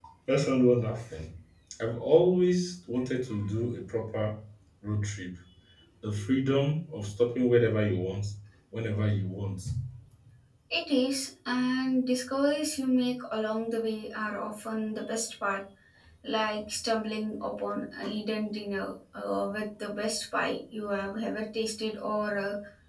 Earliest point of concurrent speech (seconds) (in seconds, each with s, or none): none